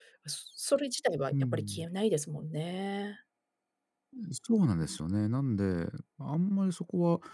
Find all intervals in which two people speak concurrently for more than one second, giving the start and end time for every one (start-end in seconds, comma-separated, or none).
none